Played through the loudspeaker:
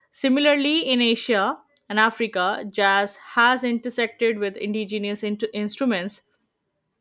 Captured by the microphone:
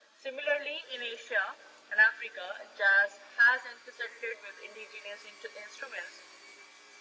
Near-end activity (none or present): none